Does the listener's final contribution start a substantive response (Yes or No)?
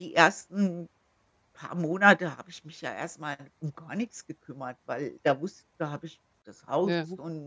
No